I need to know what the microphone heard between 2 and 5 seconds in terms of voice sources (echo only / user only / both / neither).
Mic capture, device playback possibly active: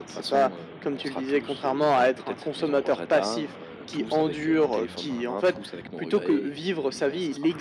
echo only